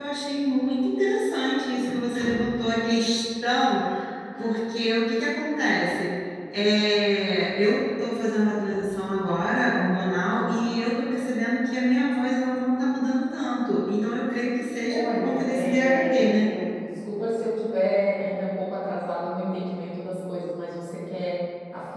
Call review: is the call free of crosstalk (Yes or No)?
No